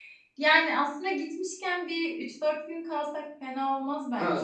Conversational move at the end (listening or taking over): taking over